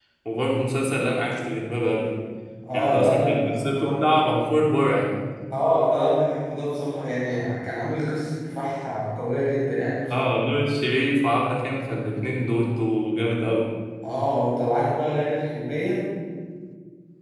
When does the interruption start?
3 s

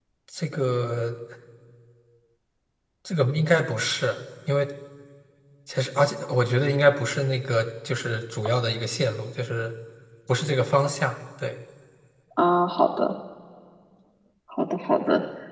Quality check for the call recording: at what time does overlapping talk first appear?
none

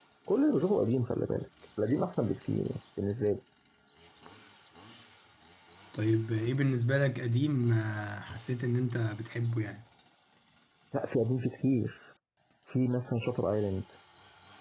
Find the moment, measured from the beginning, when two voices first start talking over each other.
none

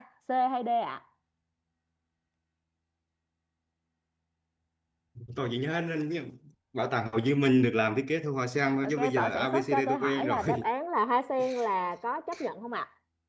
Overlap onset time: 9 s

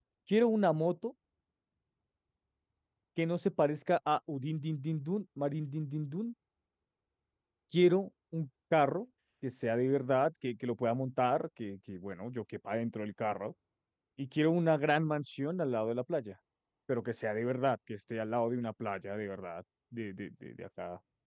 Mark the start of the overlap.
none

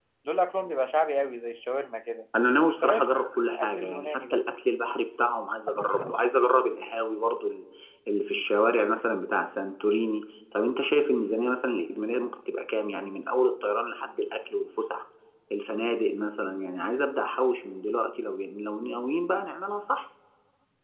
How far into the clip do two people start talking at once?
3 s

